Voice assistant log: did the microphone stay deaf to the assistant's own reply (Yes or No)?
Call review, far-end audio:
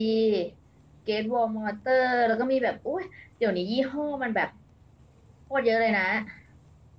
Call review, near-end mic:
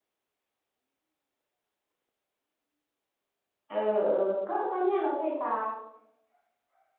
Yes